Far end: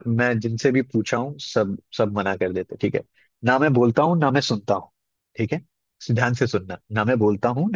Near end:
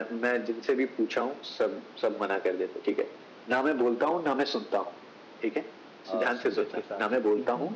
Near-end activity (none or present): present